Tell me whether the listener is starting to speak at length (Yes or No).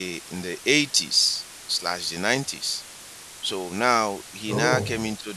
No